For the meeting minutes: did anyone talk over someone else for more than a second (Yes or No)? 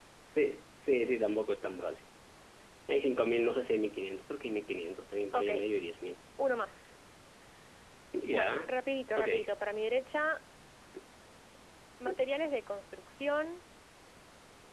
No